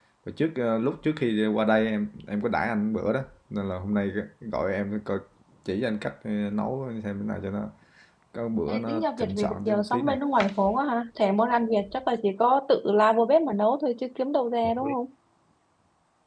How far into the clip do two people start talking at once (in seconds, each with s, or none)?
8.7 s